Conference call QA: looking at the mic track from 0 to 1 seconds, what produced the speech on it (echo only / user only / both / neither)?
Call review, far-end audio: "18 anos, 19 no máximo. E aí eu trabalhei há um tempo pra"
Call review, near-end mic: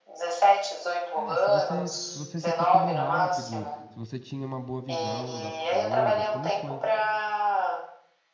echo only